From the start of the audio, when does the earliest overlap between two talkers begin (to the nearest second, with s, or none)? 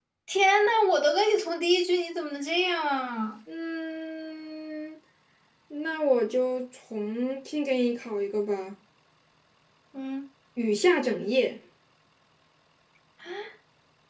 none